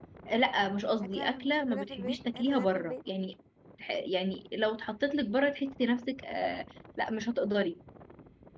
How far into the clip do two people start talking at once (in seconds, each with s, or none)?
1.1 s